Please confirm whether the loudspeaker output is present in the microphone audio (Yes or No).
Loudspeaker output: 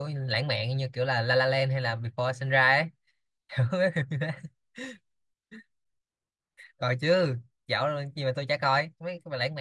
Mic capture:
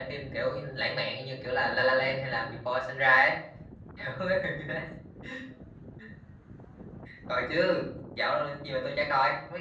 Yes